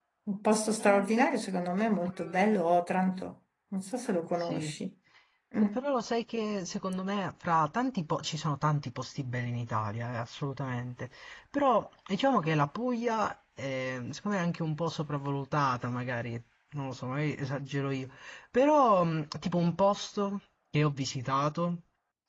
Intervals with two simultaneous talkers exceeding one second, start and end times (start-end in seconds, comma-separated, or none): none